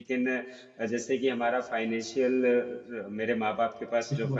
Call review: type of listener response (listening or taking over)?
listening